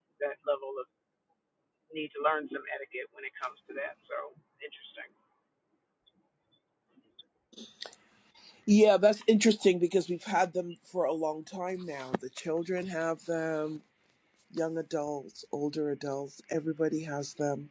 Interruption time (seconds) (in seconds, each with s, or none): none